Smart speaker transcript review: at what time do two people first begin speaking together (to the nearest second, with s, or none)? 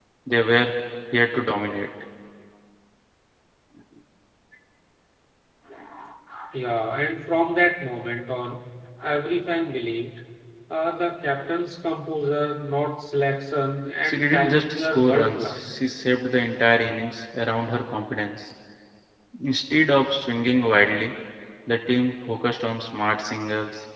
14 s